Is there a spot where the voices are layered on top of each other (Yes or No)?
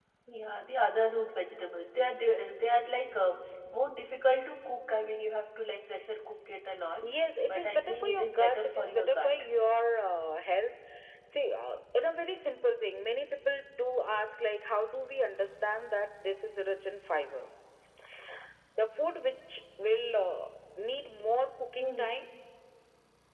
Yes